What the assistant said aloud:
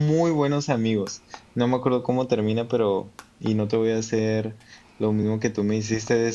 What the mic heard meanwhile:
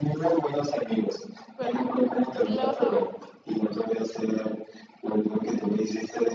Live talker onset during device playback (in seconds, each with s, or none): 1.6 s